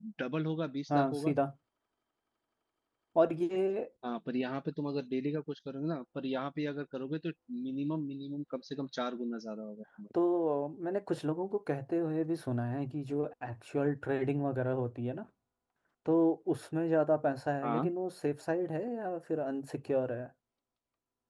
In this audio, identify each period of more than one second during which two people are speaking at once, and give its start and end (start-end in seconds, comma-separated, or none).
none